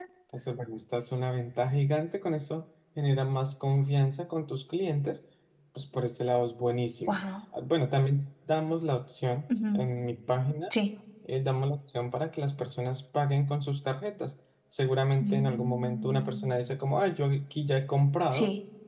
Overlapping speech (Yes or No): Yes